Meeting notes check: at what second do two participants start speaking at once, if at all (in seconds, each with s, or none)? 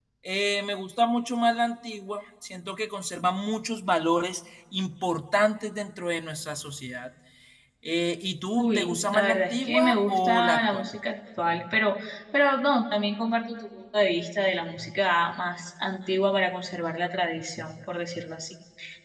8.6 s